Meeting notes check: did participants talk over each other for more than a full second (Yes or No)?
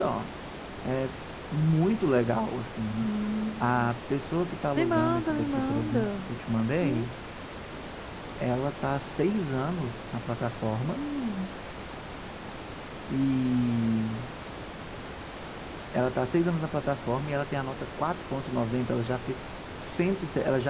Yes